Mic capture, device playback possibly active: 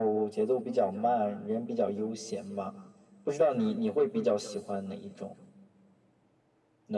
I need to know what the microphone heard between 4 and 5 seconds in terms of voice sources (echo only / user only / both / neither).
echo only